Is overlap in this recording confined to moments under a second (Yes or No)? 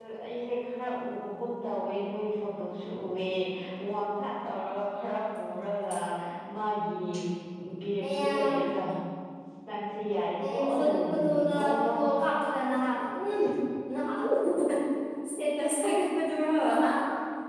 No